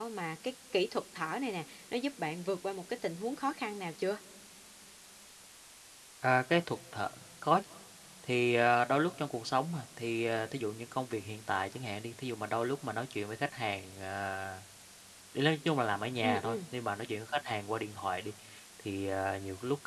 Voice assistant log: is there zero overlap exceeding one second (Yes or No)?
Yes